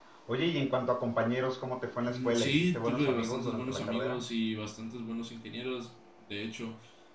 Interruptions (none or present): present